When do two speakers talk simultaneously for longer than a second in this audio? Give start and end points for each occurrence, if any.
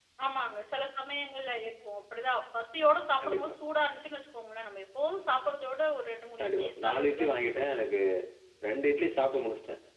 6.4-7.6

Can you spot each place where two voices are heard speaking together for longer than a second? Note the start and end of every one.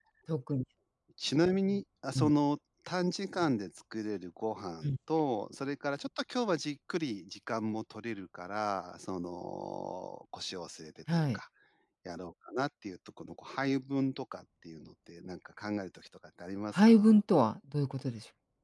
none

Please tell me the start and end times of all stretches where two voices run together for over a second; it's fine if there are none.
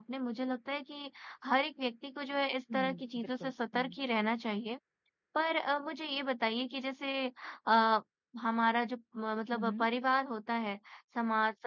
2.7-3.9

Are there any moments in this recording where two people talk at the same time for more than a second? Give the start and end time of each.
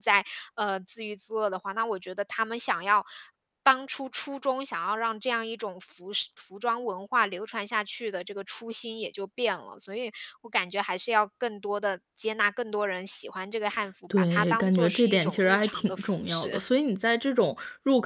14.2-16.6

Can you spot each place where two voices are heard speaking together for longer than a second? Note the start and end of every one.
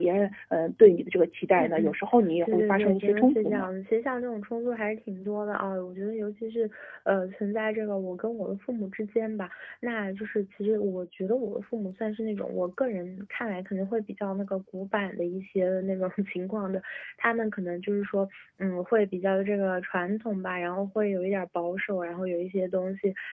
2.4-3.7

